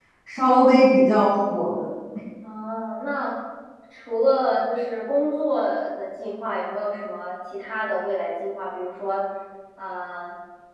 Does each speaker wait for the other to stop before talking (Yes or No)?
Yes